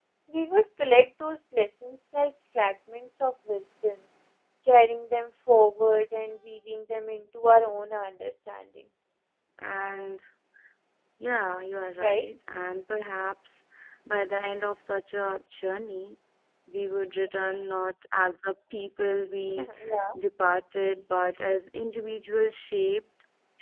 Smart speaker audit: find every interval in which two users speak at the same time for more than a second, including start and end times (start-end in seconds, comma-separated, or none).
none